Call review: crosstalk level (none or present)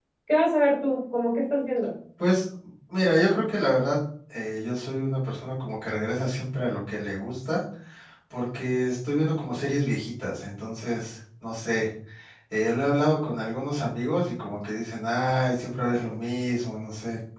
none